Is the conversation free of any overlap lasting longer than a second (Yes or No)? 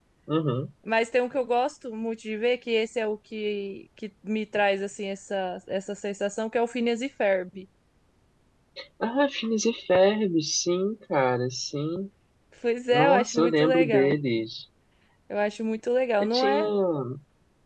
No